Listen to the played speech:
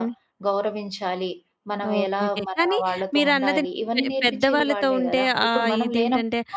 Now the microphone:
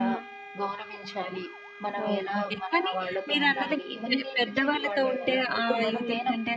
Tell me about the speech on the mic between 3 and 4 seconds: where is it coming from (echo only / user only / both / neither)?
echo only